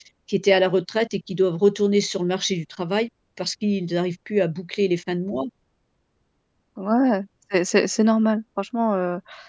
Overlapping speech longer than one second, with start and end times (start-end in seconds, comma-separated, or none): none